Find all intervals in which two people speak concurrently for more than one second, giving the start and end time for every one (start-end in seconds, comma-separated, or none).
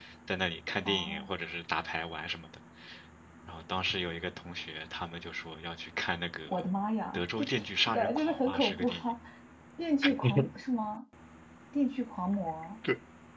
7.9-9.1